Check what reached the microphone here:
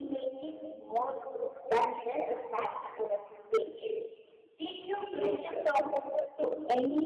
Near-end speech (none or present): none